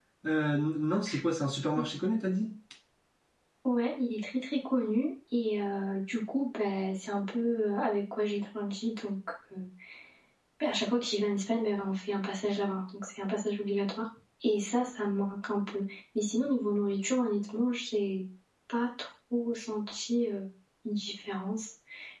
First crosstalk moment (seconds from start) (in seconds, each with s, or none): none